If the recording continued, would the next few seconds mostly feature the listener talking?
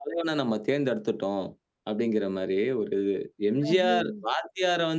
No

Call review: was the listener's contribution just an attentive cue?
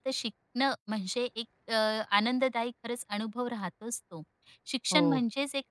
Yes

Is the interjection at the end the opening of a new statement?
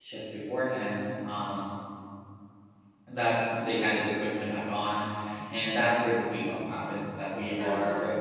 No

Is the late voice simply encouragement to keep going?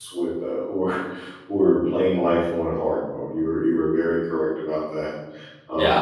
Yes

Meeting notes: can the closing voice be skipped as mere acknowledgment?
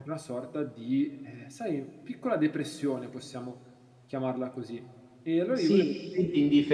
No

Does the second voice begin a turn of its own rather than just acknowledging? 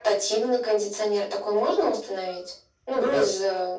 No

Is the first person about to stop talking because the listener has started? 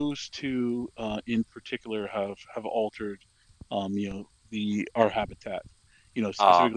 No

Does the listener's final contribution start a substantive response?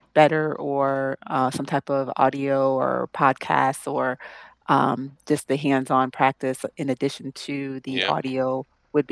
No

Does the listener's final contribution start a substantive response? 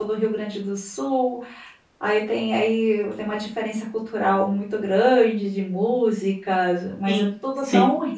No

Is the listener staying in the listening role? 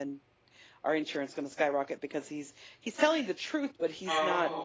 Yes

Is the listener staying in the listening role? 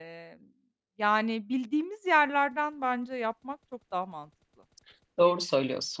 No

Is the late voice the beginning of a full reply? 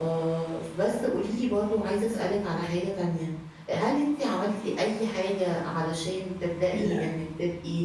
No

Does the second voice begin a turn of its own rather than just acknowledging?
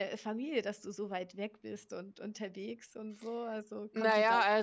Yes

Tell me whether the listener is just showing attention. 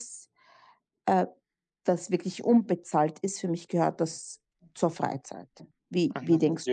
No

